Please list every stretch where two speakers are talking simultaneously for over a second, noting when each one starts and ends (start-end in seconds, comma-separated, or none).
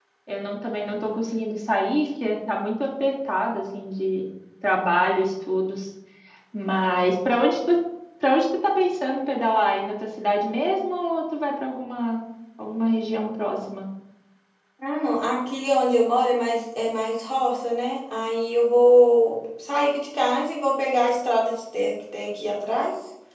none